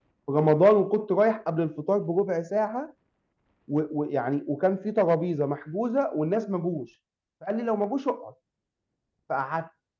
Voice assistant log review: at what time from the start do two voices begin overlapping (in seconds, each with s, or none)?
none